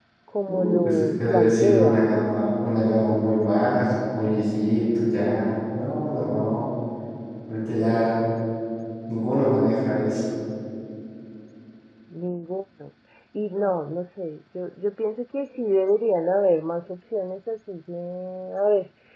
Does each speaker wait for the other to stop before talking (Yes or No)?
No